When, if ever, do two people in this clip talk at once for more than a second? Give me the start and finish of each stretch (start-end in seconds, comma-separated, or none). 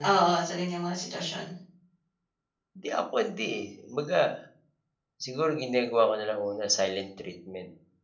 none